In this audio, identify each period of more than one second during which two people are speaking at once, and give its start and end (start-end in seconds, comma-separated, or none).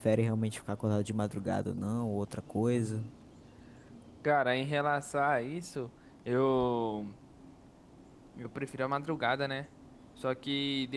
none